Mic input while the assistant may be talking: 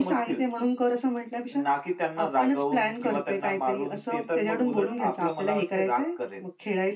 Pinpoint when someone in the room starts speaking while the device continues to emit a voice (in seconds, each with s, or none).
none